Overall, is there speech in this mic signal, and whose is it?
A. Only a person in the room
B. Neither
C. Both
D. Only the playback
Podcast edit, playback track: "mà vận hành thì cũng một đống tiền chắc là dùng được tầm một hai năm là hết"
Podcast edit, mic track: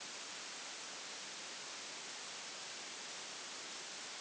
B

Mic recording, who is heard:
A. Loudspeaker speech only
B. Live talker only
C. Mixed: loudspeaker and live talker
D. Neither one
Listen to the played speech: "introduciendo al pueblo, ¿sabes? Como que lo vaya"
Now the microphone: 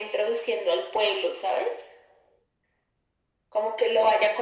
A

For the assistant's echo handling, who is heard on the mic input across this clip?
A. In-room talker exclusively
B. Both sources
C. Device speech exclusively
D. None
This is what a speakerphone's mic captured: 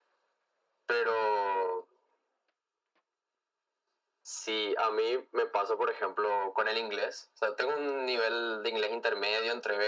C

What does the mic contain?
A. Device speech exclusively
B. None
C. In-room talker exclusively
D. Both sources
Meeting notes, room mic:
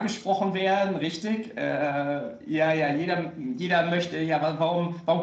A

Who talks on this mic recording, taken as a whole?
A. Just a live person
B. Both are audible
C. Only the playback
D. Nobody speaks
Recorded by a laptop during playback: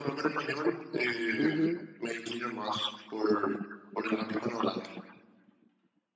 B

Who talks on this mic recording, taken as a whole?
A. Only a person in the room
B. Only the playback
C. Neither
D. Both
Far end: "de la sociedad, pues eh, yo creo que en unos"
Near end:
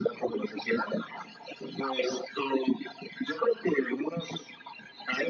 B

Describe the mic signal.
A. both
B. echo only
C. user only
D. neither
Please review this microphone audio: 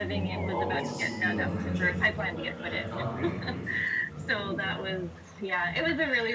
A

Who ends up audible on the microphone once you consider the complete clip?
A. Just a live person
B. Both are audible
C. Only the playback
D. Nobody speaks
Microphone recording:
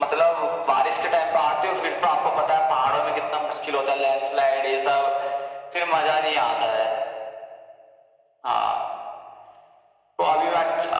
C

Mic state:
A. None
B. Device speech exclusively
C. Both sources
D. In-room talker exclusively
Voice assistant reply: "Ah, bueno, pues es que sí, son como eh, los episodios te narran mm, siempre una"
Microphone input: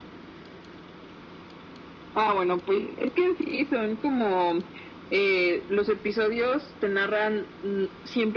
B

